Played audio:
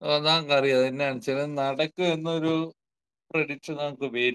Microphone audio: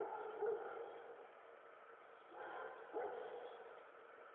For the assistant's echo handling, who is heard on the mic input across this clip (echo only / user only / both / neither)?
neither